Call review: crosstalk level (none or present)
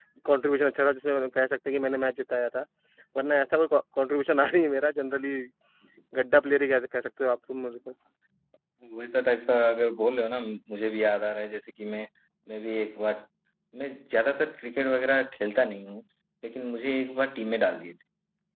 none